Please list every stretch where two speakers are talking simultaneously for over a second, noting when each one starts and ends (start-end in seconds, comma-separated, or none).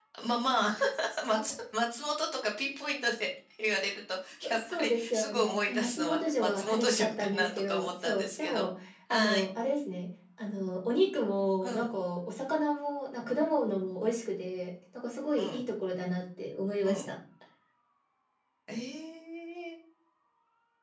4.4-8.7